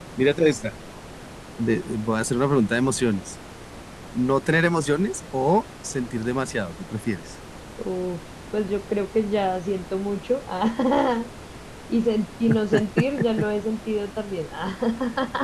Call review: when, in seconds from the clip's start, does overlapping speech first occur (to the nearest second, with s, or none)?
none